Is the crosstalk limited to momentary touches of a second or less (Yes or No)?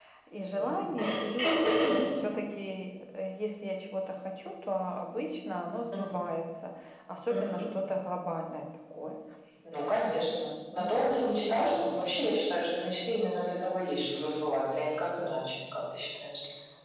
No